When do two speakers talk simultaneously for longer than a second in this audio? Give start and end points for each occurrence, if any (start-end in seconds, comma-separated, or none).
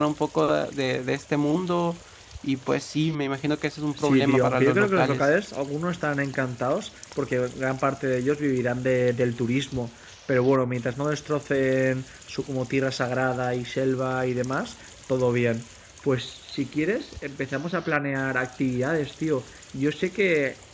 4.0-5.3